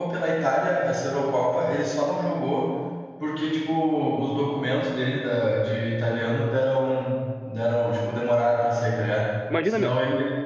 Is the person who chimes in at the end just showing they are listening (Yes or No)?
Yes